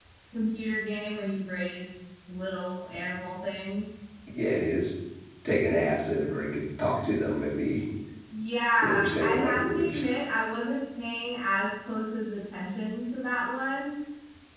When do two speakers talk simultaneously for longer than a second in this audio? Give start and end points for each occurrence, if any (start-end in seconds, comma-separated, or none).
8.8-10.0